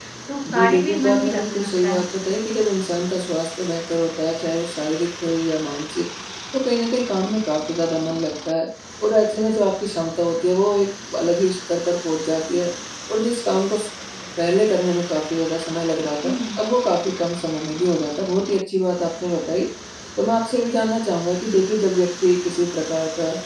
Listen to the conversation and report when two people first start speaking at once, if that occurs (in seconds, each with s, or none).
0.5 s